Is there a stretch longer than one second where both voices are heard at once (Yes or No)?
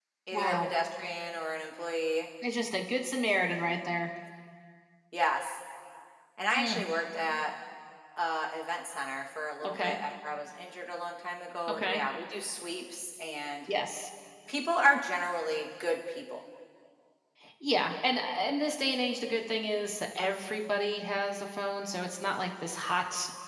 No